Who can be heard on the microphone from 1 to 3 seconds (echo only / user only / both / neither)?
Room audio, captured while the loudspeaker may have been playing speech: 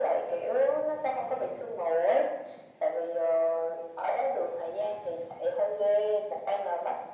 echo only